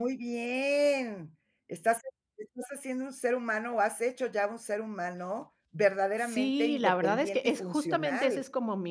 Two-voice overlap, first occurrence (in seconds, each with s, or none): 6.2 s